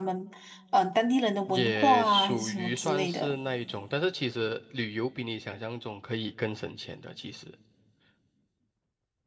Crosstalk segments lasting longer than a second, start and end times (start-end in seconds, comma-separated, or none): 1.5-3.4